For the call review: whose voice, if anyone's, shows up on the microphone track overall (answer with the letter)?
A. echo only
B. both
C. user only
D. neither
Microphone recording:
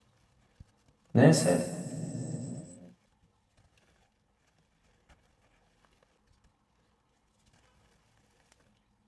C